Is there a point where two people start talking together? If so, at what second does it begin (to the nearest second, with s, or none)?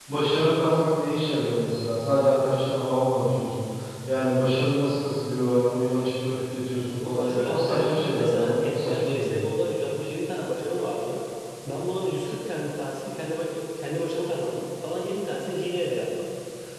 7 s